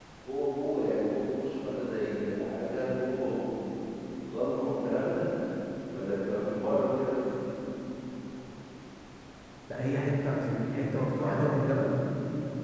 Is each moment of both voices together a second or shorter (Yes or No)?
Yes